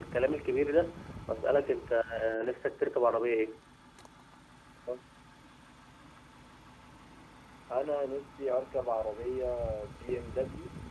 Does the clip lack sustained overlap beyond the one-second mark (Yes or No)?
Yes